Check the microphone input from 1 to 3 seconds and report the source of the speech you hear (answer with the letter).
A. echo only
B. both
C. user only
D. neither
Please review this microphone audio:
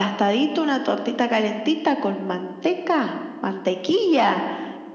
A